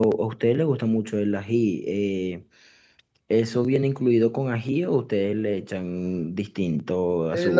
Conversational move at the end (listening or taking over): taking over